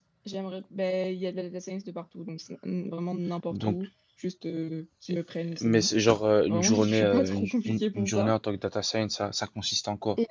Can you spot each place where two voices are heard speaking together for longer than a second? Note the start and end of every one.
6.5-8.3

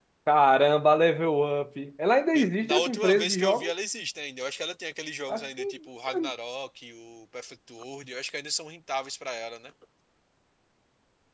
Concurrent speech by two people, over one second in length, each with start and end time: 2.3-3.7

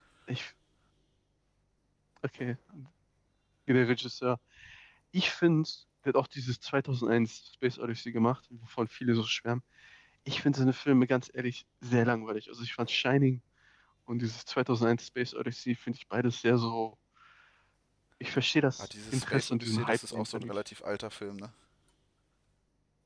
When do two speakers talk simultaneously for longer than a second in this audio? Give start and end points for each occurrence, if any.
18.8-20.5

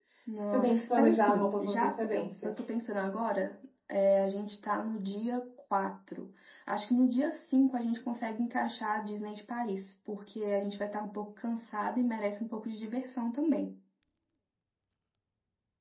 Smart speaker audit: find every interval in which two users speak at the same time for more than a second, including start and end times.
0.5-2.5

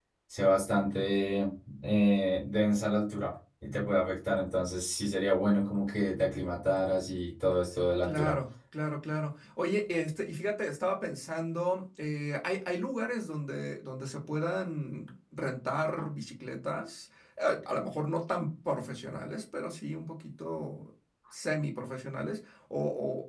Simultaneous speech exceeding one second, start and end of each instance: none

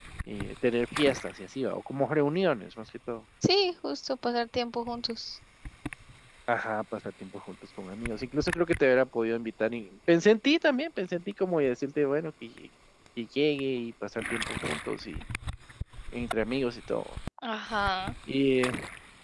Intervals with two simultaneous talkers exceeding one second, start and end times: none

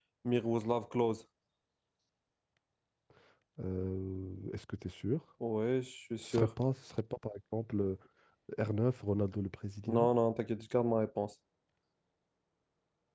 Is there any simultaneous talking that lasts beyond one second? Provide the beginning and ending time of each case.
none

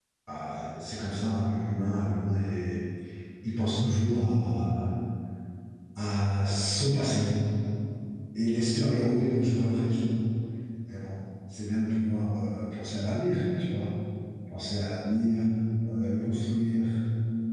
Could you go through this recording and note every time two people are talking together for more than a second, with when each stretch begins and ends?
none

